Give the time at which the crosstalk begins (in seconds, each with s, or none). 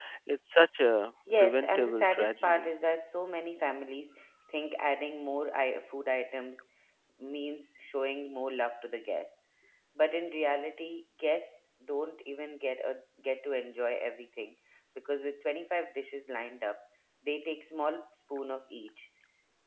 1.3 s